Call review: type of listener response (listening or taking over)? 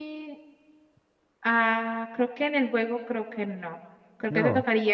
listening